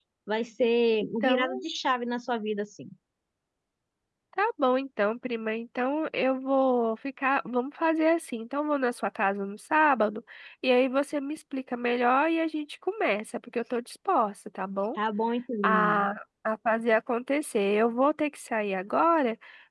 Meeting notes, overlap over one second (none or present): none